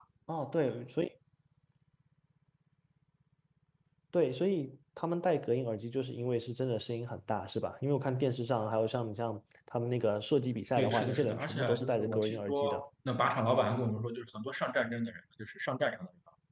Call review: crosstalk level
present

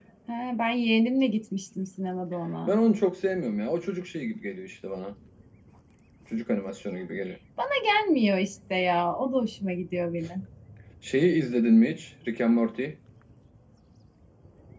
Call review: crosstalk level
none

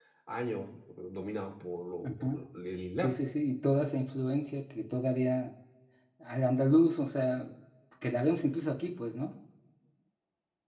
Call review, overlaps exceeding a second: none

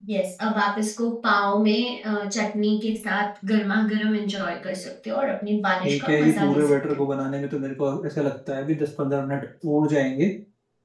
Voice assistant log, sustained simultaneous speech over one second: present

